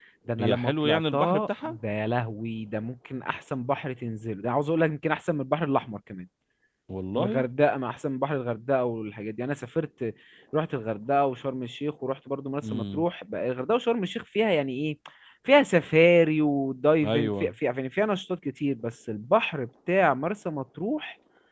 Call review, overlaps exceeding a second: present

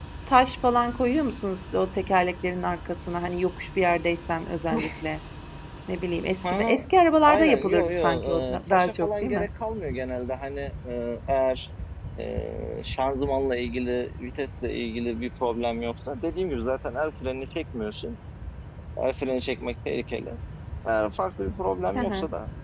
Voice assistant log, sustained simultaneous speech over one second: present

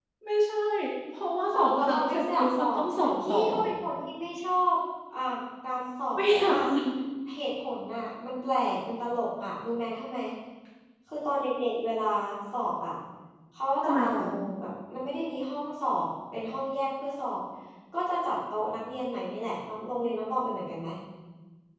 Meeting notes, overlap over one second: present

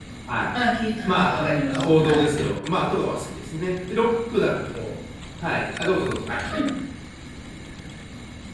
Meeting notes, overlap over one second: present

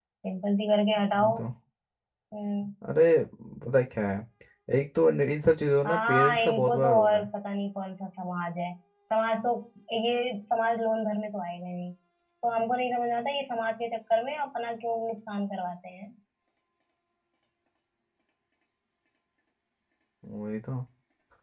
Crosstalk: present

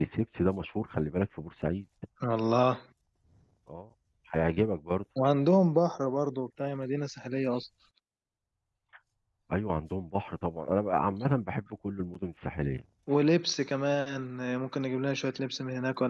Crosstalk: none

